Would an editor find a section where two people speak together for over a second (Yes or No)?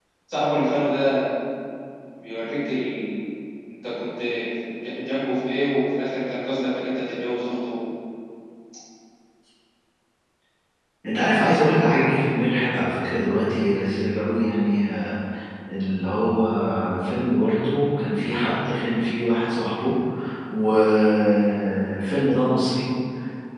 No